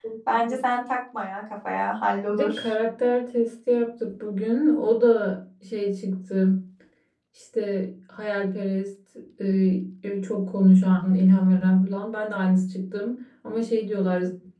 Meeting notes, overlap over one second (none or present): none